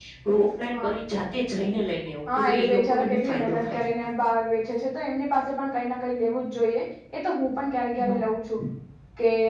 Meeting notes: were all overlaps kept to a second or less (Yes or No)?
No